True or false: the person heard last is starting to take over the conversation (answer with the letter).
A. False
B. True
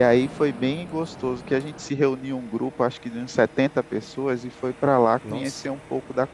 A